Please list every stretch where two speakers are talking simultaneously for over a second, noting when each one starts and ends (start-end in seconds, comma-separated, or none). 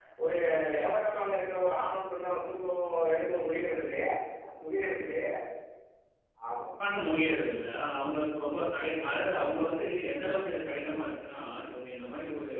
none